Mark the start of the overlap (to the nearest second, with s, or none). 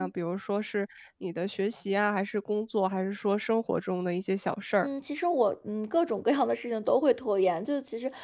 none